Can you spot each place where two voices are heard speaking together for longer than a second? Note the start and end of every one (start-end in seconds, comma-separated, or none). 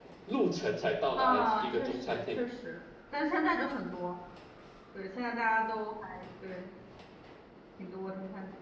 1.2-2.4